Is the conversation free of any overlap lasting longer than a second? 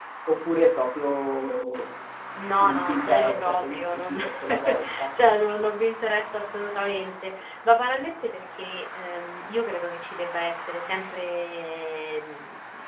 No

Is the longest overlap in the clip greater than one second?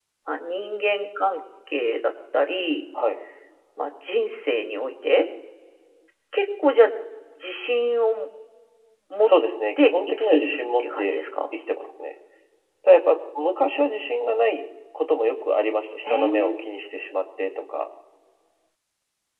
Yes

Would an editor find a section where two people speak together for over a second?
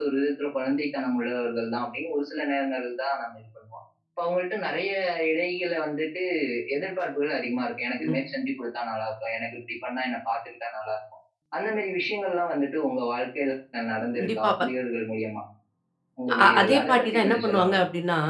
Yes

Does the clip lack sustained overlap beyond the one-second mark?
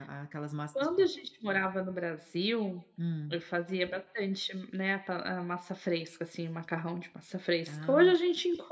Yes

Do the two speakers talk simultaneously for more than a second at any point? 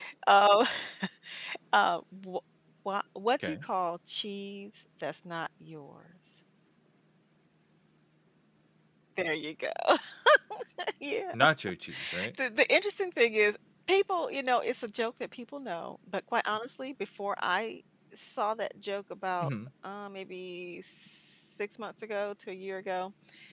No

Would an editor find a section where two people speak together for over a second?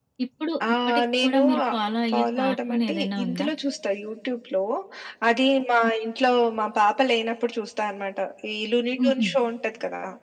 Yes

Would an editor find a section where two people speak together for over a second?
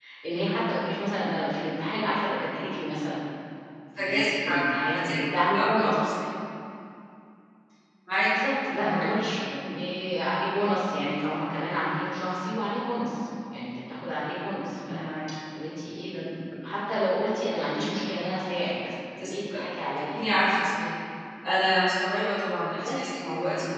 Yes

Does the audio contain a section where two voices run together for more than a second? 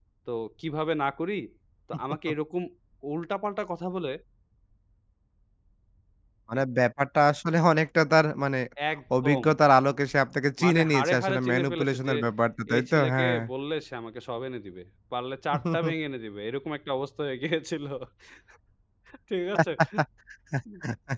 Yes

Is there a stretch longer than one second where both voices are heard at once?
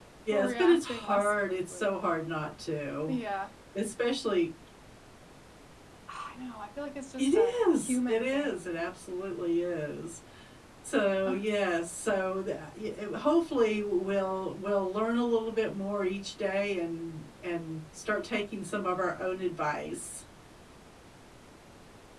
Yes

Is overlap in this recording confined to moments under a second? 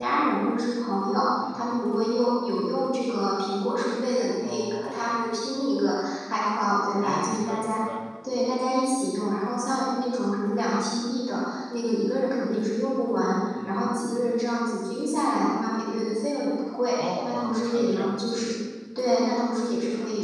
No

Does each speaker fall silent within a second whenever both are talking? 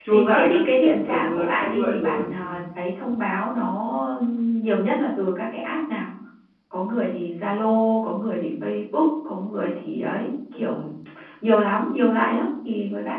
No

